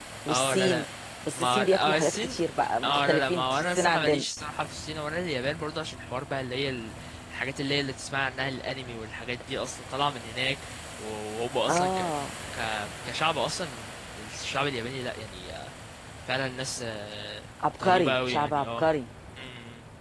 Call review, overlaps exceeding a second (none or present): present